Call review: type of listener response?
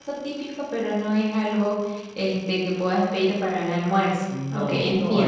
taking over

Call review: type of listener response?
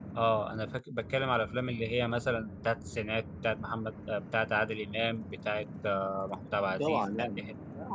taking over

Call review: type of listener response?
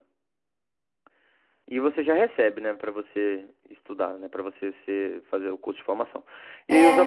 taking over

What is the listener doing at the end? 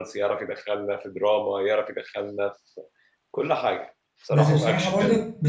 taking over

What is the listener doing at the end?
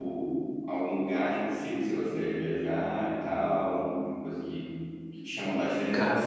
listening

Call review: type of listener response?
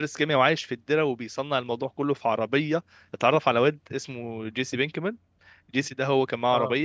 listening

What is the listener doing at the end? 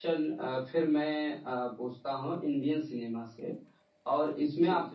listening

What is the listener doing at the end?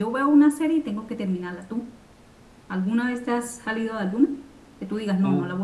listening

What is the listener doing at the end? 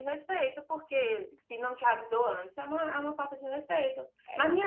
listening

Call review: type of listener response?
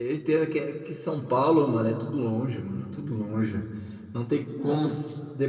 listening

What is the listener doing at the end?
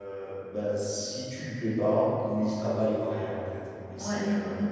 listening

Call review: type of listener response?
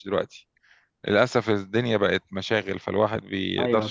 listening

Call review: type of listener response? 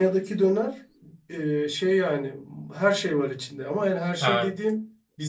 listening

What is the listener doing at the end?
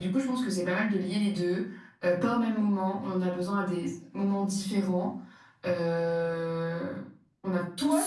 taking over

